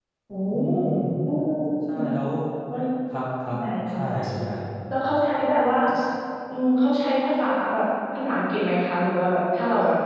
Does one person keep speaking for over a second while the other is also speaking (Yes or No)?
No